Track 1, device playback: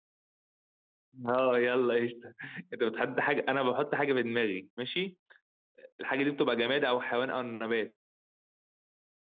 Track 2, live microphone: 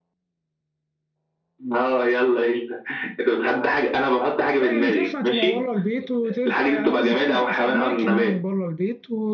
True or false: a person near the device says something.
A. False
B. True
B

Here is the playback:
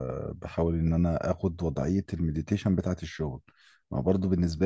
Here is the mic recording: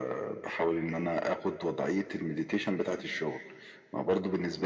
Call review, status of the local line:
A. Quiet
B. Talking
A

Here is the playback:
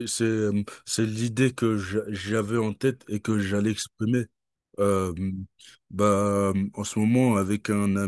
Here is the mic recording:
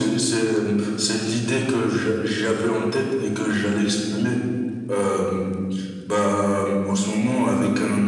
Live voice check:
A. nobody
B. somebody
A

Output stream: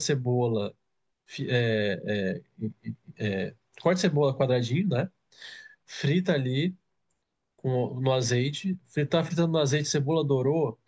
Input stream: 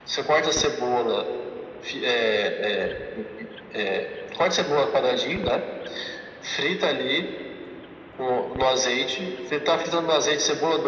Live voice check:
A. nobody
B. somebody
A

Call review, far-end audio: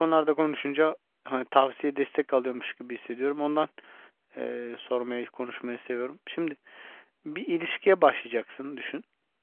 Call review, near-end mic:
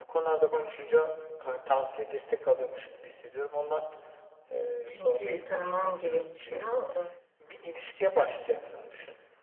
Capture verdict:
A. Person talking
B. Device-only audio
A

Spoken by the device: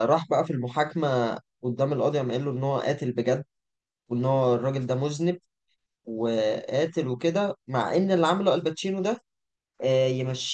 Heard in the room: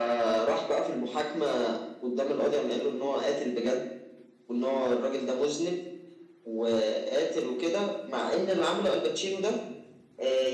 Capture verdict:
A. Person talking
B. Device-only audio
B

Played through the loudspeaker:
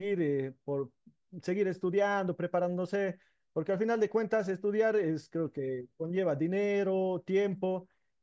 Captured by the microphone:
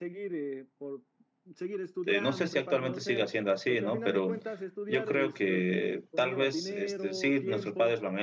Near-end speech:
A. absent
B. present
B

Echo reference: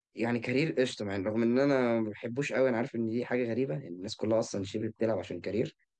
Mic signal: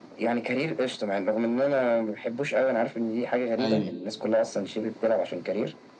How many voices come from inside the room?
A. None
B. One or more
B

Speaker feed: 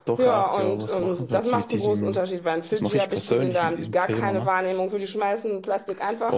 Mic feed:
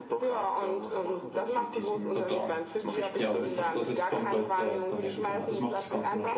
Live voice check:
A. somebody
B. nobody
A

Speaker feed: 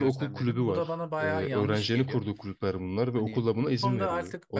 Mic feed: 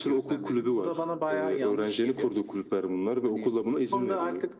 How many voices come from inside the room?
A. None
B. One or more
A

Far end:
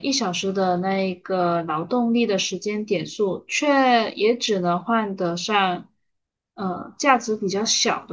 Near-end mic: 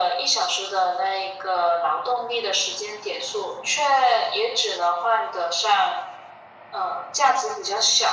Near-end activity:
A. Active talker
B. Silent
B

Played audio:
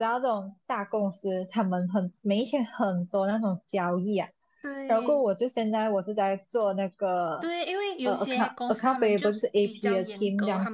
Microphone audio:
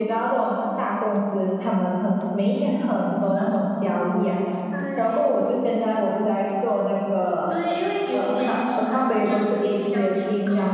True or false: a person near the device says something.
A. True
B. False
B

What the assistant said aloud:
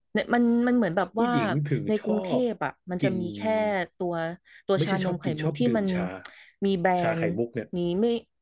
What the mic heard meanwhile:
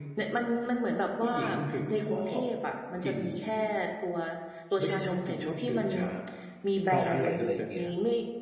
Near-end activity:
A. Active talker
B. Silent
A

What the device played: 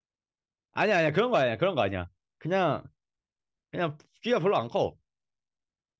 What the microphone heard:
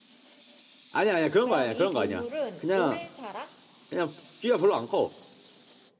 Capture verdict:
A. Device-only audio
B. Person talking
B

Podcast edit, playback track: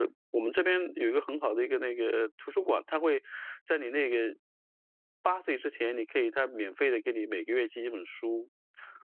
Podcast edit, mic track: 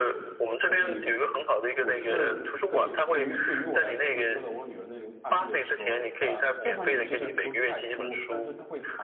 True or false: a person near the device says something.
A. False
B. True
B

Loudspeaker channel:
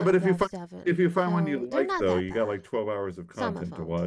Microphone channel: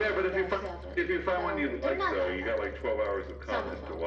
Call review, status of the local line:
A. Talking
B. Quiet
B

